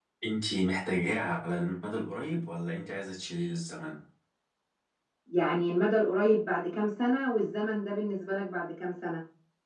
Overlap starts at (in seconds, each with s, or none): none